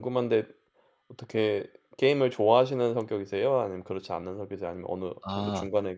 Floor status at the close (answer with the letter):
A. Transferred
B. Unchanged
A